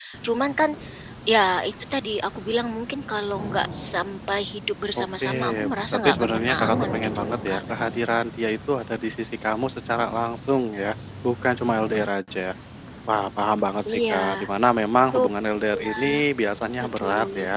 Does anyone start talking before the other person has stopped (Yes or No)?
Yes